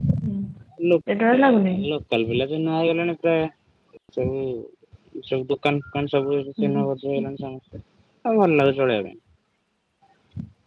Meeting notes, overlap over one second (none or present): none